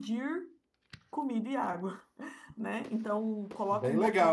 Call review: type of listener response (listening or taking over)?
taking over